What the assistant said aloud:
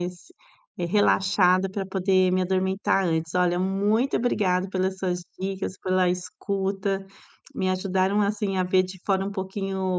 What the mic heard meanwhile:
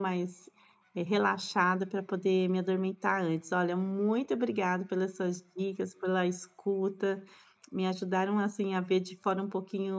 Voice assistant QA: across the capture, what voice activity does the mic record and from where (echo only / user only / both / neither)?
echo only